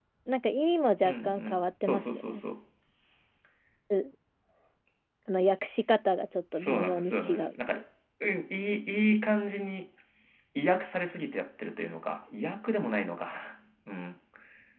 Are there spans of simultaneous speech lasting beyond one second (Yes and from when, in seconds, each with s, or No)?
Yes, from 1.0 s